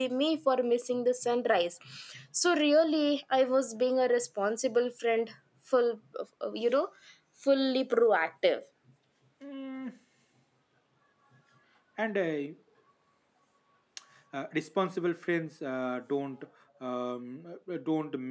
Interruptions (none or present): none